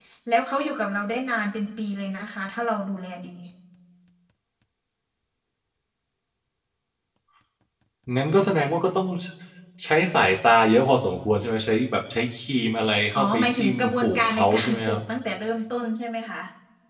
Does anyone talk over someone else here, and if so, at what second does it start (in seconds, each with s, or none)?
13.1 s